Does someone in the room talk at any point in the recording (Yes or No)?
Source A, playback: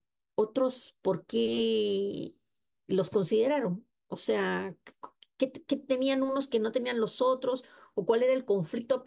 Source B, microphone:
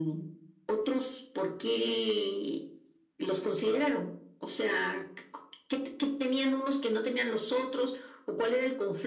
No